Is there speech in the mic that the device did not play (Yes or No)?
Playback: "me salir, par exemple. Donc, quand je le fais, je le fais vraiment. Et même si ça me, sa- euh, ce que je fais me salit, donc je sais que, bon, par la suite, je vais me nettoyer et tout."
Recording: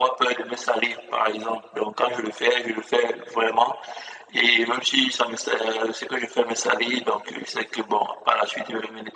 No